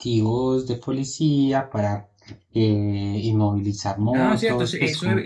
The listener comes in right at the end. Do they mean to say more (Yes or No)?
Yes